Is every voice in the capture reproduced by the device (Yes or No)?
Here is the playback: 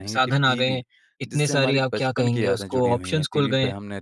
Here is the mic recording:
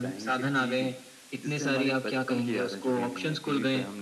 Yes